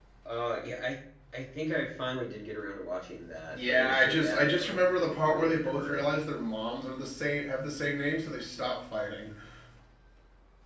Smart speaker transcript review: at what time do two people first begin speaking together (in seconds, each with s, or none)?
3.5 s